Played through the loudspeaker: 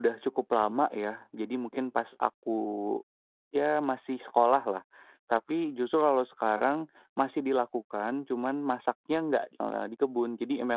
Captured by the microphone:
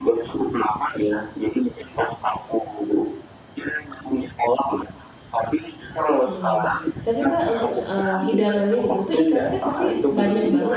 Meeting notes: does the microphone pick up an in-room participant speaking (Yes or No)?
Yes